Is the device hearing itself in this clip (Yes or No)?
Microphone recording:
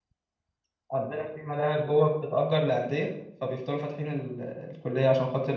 No